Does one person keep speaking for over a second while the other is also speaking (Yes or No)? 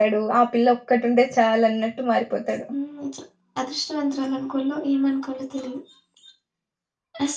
No